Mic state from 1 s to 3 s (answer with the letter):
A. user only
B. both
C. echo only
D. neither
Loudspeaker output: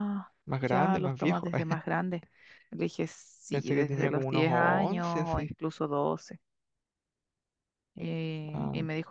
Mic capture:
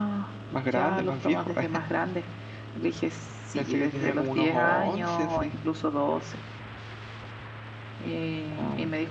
C